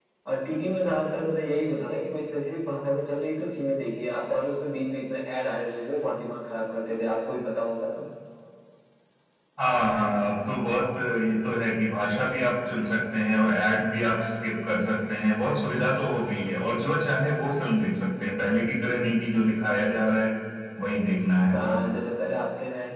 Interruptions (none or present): none